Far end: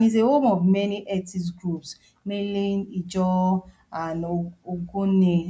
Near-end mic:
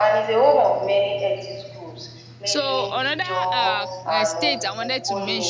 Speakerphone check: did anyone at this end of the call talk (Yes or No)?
Yes